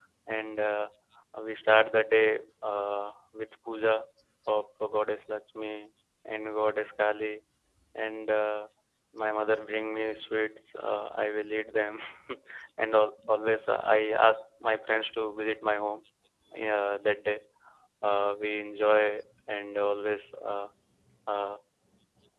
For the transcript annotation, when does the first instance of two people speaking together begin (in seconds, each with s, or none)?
none